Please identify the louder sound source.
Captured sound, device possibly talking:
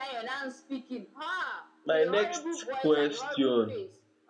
user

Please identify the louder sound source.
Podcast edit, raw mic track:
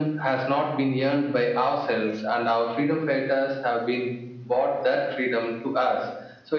echo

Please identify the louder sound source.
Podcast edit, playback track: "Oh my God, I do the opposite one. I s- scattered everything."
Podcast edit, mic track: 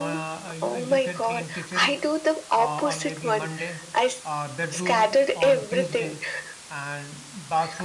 echo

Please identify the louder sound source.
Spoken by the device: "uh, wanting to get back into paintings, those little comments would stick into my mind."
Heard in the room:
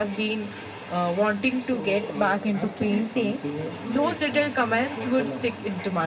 echo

